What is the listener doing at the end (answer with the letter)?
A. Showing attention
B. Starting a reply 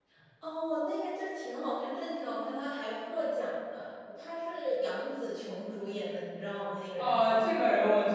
B